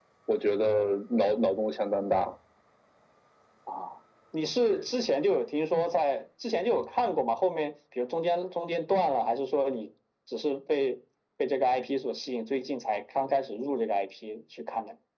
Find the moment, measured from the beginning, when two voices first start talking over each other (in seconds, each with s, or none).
none